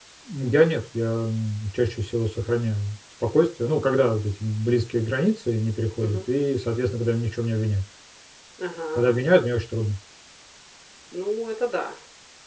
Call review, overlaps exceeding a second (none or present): none